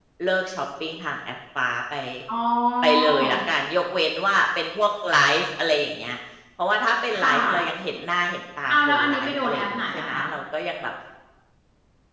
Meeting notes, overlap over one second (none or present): present